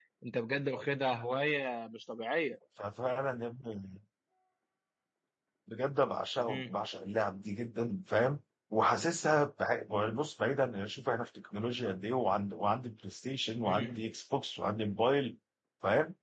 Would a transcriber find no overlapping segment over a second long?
Yes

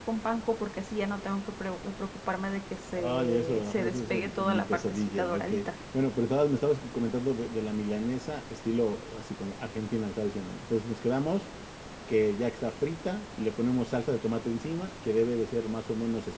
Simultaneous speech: Yes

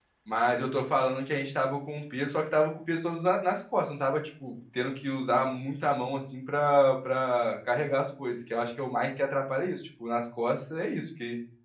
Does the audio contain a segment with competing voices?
No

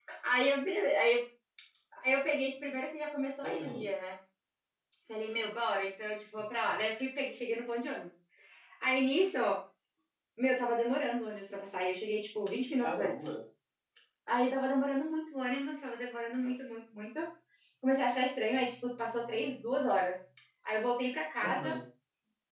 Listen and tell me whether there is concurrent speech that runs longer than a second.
No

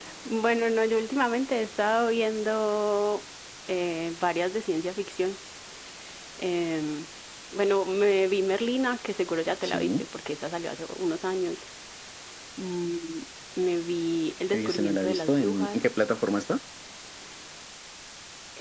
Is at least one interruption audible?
Yes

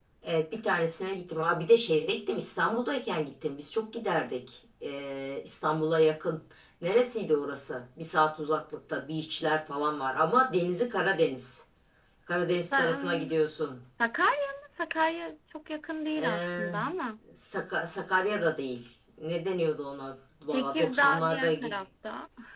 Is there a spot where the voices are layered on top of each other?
Yes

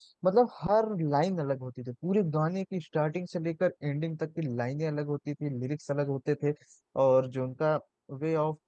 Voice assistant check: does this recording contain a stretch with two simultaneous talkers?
No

